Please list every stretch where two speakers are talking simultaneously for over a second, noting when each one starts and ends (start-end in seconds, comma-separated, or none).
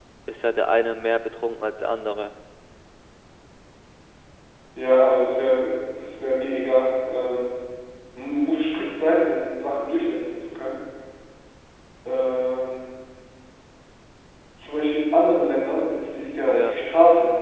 none